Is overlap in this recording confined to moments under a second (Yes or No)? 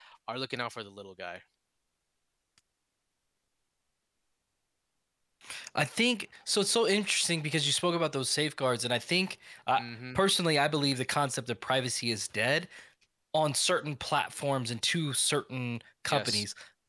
Yes